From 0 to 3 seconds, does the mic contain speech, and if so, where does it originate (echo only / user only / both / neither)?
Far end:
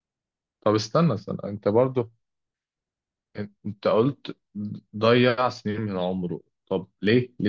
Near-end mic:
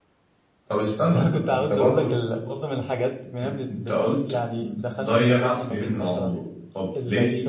both